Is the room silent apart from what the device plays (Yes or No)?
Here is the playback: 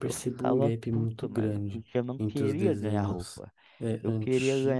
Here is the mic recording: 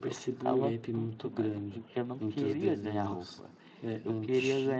Yes